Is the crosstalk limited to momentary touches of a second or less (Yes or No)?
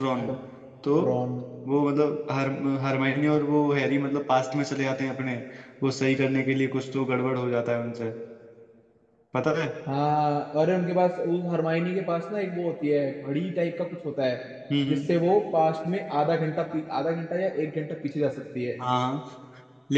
Yes